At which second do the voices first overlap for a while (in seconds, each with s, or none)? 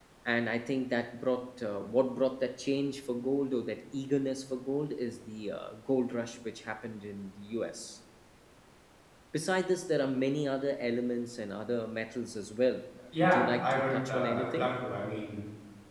13.1 s